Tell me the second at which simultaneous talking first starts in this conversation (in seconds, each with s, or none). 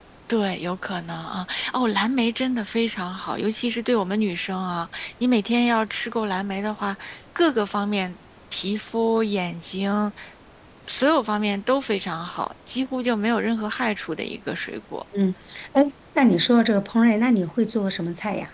none